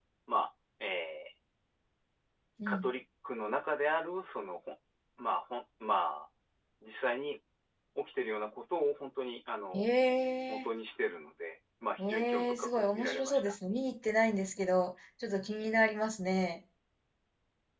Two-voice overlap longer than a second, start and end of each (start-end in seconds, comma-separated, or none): 12.1-13.5